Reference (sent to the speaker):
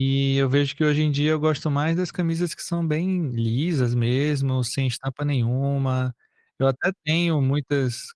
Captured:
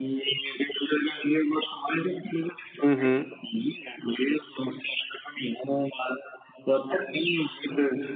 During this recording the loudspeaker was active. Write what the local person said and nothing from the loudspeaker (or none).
Uhum.